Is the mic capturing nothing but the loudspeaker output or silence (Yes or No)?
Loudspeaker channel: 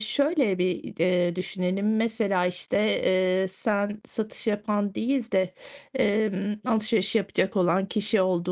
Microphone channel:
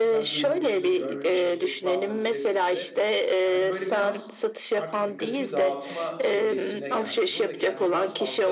No